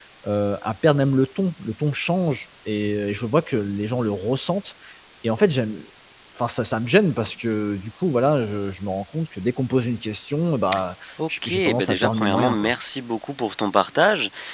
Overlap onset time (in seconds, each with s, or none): 11.4 s